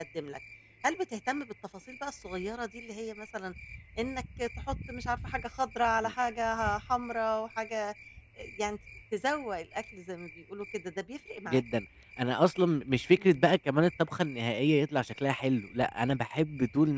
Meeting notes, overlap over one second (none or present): none